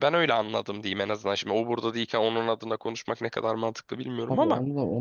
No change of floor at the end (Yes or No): No